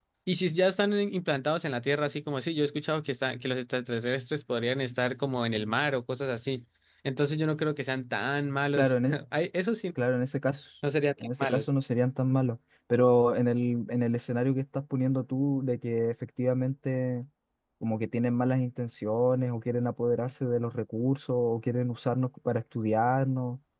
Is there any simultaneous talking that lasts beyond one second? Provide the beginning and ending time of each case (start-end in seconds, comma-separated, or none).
none